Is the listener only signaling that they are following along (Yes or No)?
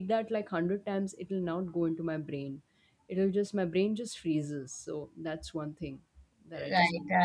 No